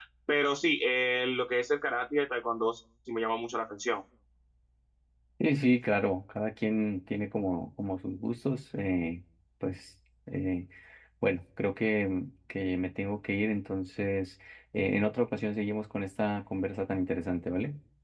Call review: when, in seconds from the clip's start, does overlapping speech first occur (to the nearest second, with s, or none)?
none